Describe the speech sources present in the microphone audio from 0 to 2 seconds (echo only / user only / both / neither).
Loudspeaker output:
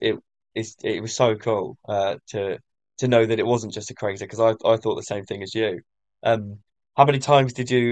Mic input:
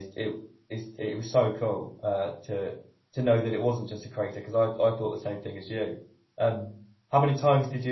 echo only